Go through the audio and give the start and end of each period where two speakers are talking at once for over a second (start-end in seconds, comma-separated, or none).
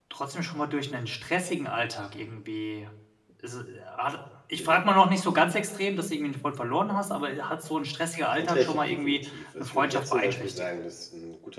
8.2-10.7